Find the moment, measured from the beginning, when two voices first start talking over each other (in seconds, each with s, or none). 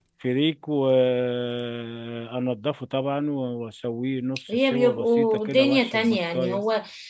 4.5 s